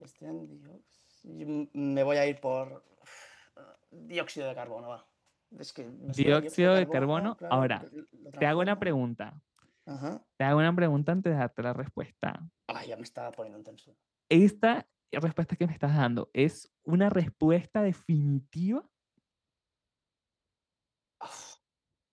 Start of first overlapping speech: 6 s

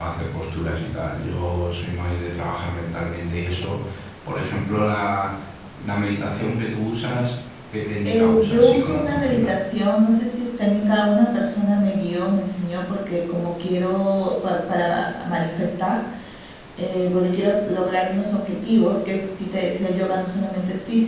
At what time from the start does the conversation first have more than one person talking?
8 s

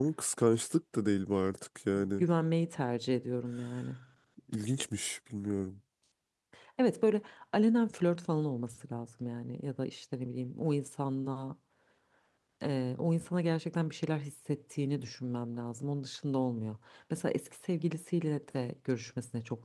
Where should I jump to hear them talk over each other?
none

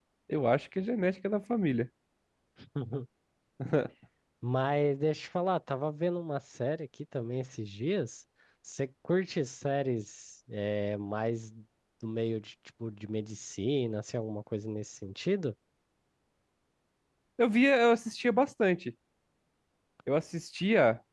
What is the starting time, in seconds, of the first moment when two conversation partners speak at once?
none

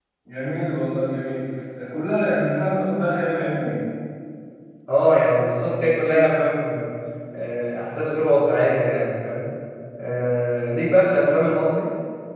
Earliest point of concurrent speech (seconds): none

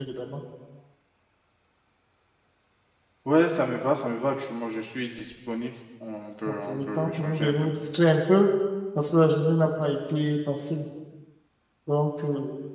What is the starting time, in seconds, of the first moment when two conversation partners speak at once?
6 s

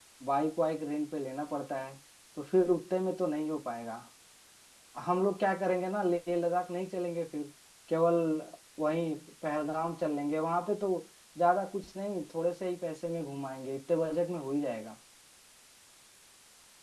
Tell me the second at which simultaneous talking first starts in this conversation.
none

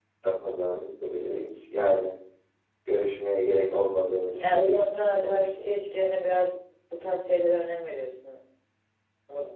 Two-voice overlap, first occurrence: 4 s

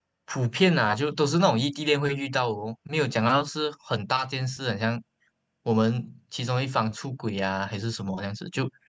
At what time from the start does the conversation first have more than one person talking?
none

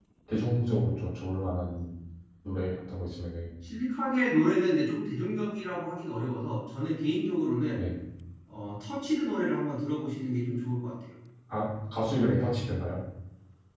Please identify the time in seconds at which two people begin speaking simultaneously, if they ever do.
none

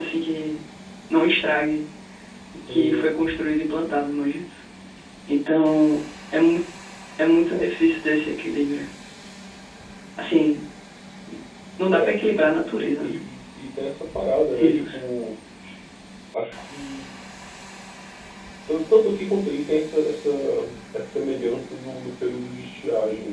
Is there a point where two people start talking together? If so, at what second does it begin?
3 s

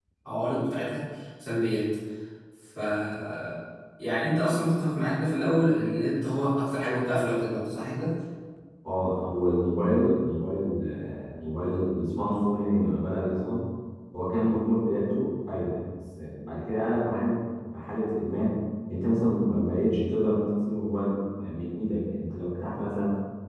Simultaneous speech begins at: none

